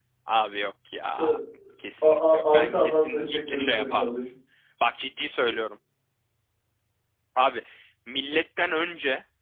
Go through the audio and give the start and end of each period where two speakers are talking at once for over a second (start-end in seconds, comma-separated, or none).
2.0-4.2